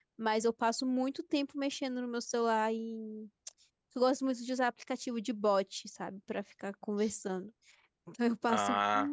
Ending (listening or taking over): listening